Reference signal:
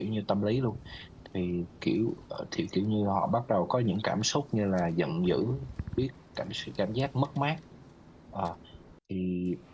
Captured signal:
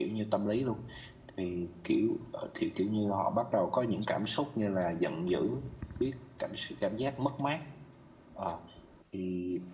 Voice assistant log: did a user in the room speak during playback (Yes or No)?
No